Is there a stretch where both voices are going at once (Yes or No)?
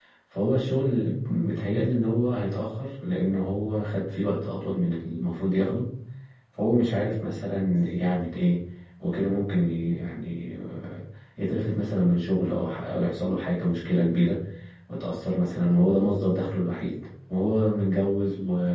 No